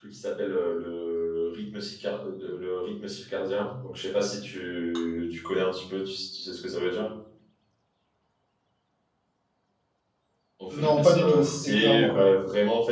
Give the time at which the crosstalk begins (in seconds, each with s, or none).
10.7 s